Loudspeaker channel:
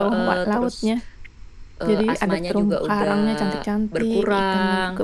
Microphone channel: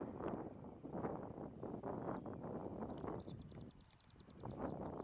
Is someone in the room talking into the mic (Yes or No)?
No